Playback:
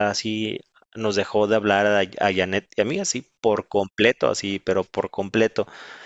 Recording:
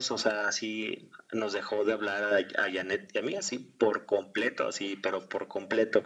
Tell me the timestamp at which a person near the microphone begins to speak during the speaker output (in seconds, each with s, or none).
none